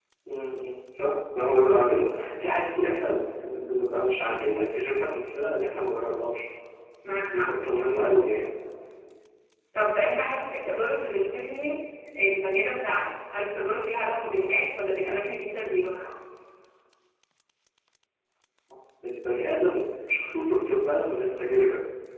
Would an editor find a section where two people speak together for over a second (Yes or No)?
No